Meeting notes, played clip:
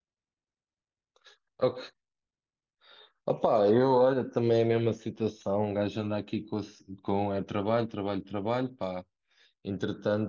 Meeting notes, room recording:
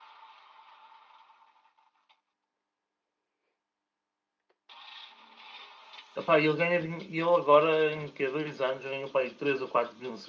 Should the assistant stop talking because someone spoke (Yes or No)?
Yes